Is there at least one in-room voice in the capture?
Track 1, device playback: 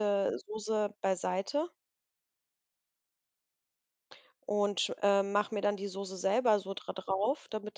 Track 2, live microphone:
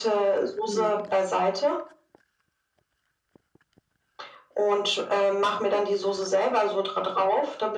Yes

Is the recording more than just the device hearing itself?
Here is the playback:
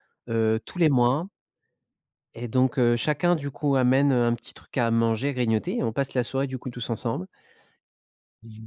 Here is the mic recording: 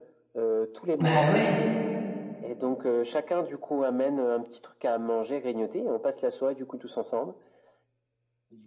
Yes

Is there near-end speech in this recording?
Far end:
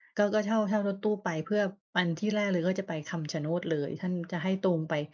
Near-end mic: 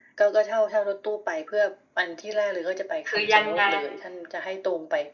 Yes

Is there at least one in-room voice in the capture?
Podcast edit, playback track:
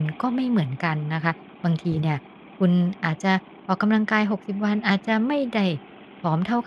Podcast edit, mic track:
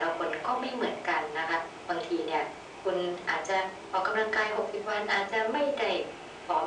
No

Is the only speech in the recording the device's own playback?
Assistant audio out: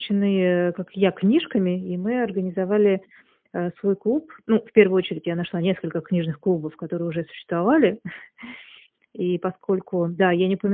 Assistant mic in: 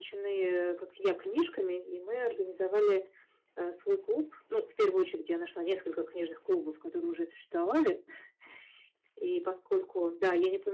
Yes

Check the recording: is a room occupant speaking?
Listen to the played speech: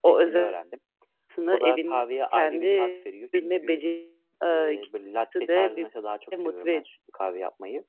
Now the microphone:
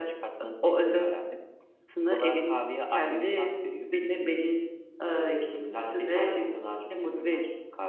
No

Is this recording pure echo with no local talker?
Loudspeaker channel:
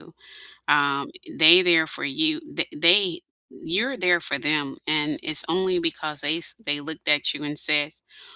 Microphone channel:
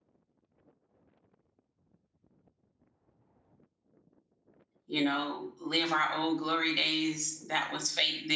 No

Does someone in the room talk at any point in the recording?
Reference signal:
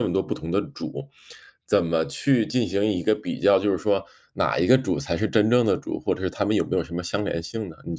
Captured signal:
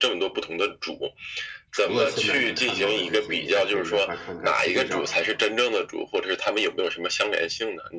Yes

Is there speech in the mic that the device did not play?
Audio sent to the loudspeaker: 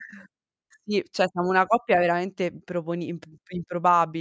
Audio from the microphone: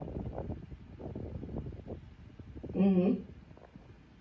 Yes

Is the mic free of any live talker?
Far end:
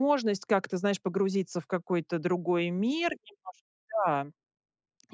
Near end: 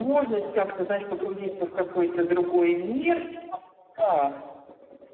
Yes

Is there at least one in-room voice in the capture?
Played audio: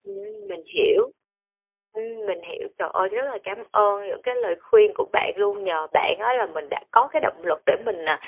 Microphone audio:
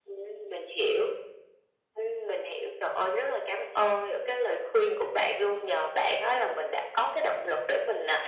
No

